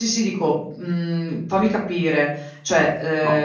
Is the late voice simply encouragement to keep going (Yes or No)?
No